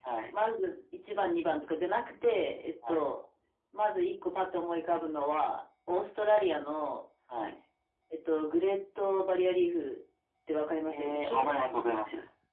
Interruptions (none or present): present